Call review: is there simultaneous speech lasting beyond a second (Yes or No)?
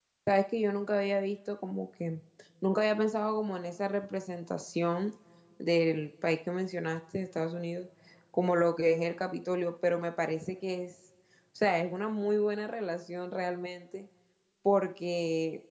No